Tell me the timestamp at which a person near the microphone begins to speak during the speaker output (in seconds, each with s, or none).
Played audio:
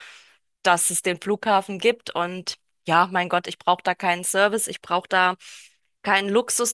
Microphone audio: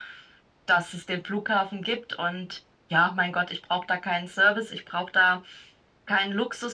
none